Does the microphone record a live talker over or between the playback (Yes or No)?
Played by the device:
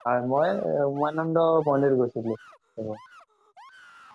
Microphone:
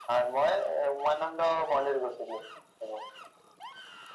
No